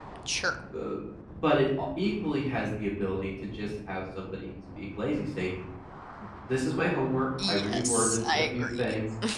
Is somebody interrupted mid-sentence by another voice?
Yes, from 7.4 s

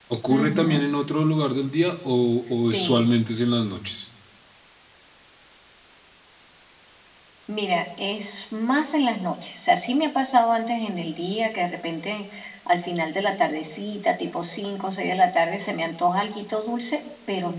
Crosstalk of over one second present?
No

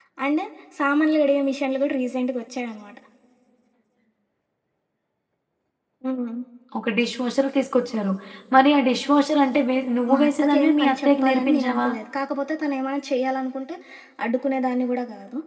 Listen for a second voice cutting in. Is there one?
Yes, from 10.1 s

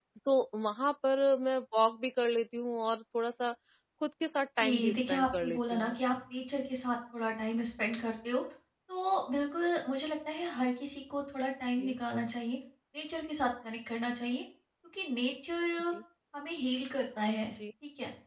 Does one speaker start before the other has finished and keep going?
Yes, from 4.6 s

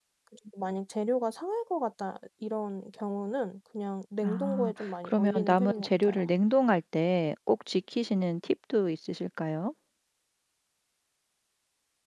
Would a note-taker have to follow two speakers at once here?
Yes, from 4.2 s

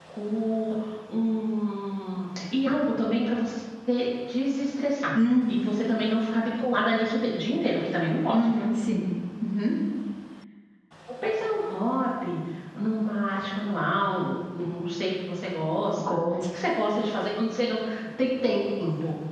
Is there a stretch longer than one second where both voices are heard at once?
No

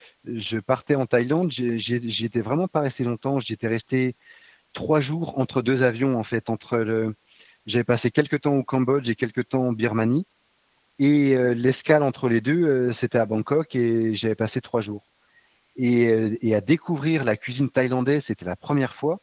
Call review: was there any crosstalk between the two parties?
No

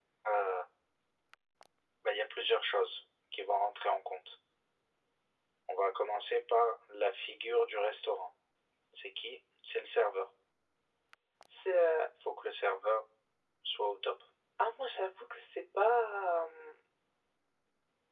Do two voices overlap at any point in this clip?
No

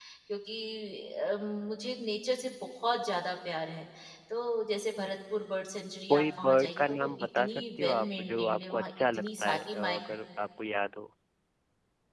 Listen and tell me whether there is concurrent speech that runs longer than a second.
Yes, from 6.1 s

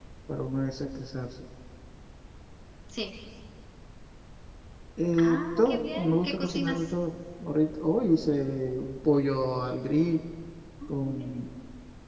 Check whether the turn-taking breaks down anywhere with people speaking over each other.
Yes, from 5.2 s

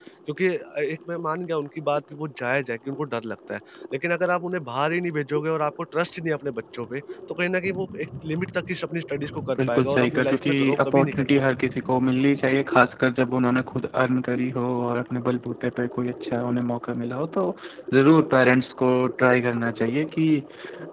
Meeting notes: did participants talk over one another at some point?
Yes, from 9.6 s

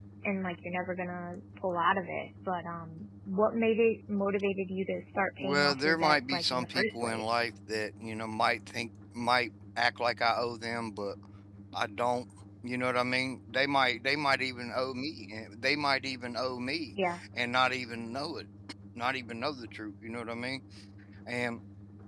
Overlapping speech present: Yes, from 5.4 s

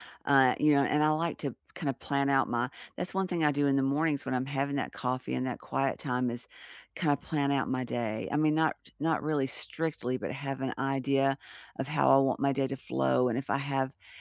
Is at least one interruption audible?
No

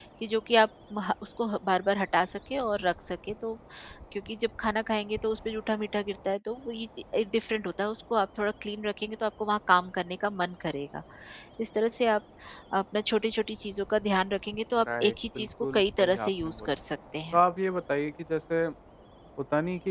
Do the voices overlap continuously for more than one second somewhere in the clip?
Yes, from 14.8 s

